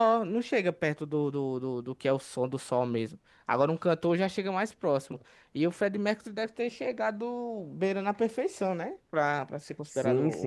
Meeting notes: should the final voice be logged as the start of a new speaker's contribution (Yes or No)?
Yes